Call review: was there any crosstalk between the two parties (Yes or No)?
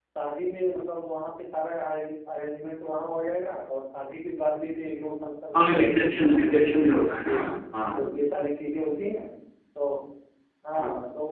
Yes